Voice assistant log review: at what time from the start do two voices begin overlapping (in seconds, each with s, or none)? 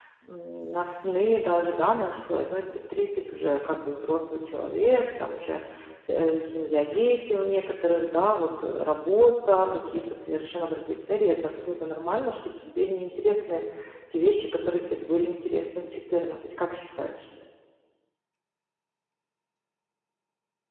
none